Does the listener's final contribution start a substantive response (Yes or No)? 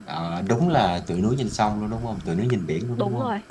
Yes